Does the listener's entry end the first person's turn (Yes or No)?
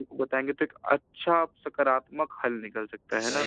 Yes